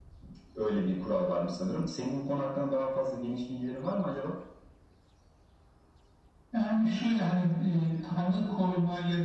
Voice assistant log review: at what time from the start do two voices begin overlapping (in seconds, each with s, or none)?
none